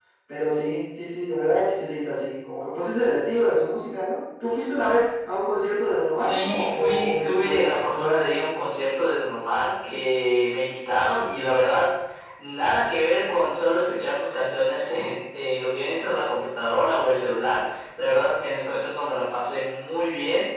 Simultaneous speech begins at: 6.2 s

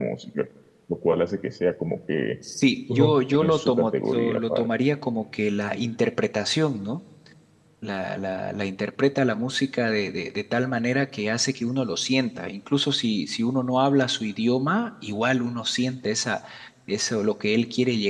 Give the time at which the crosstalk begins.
2.9 s

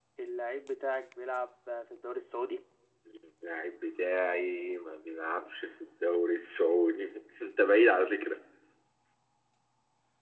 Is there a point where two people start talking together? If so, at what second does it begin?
none

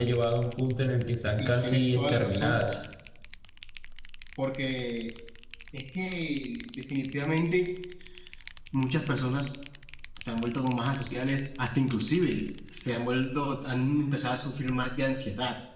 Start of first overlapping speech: 1.4 s

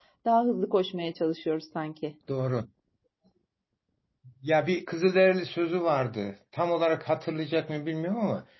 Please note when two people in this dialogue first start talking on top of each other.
none

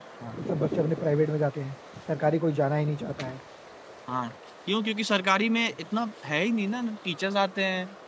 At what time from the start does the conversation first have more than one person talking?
none

